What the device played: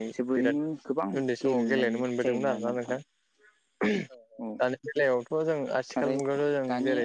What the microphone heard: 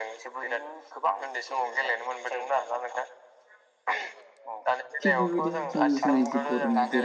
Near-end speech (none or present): present